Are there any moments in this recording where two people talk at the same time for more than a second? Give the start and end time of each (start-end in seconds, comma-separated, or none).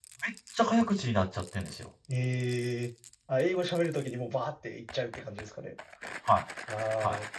none